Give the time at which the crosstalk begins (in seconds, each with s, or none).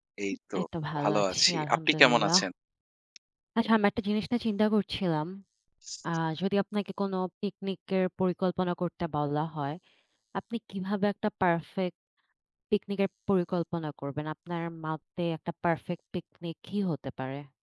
1.0 s